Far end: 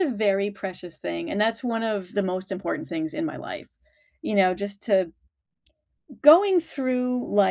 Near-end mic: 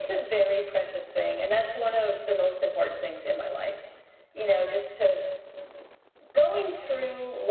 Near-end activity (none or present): none